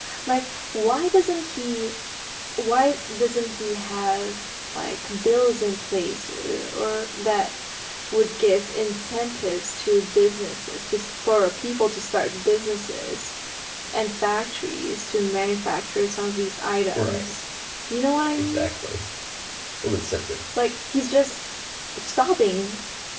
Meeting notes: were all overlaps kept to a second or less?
Yes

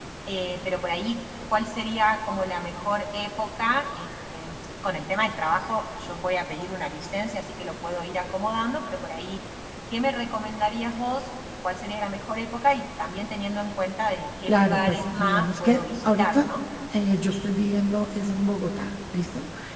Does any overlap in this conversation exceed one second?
Yes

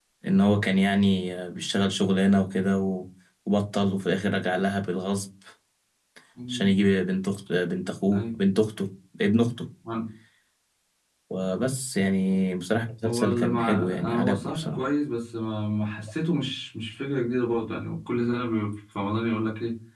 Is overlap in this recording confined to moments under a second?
No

